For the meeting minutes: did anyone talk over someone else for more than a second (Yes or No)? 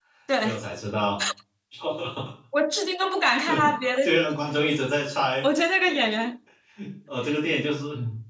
No